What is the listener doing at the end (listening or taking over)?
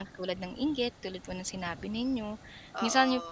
listening